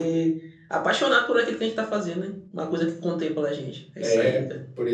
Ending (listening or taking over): taking over